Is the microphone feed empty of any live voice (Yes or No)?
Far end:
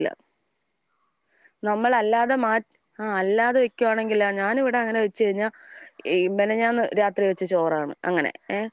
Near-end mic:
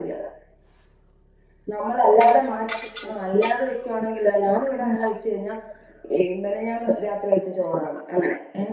No